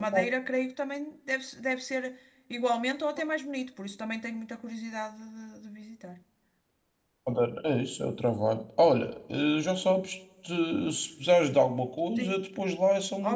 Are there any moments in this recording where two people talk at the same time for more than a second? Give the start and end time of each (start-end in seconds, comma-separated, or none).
none